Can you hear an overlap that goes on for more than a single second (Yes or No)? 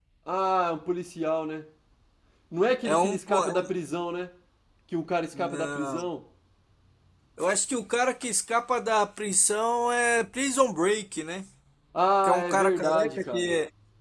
Yes